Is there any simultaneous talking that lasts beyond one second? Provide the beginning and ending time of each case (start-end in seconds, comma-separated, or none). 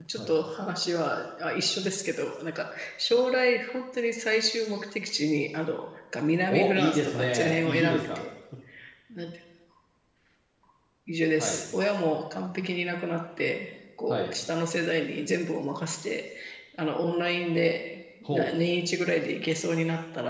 6.5-8.2